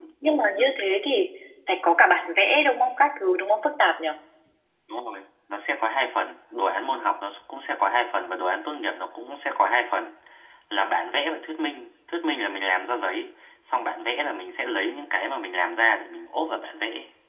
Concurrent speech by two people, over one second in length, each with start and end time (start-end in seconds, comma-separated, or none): none